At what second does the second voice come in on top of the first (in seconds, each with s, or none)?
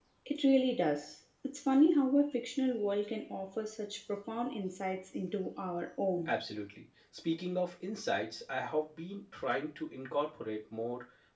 none